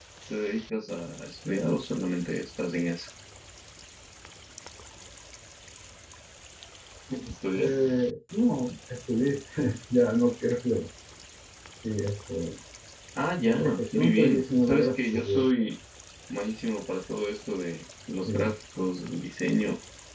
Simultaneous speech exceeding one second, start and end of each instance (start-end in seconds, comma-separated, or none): 13.5-15.7